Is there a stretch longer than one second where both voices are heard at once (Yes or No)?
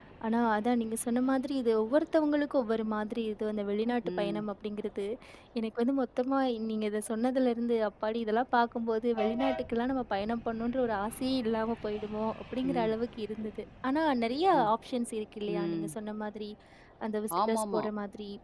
No